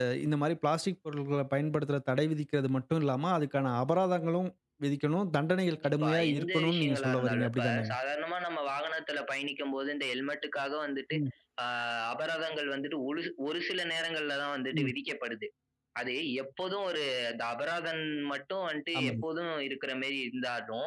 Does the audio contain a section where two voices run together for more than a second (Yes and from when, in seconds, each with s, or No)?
Yes, from 5.7 s